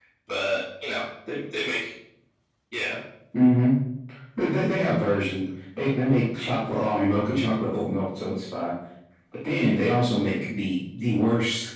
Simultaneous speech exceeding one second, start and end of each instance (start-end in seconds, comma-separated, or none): none